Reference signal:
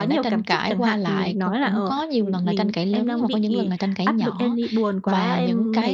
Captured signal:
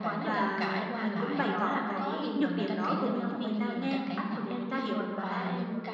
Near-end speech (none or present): present